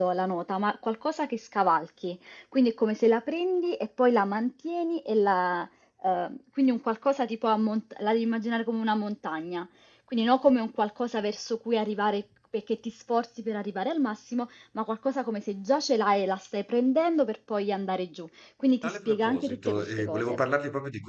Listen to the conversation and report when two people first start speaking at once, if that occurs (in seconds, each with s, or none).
18.8 s